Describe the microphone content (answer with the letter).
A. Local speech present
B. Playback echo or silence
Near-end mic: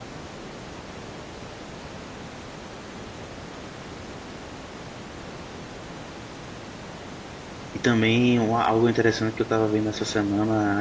A